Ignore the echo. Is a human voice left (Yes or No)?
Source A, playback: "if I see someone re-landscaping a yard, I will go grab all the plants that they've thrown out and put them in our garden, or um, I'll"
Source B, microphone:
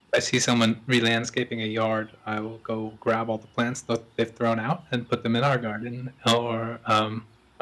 No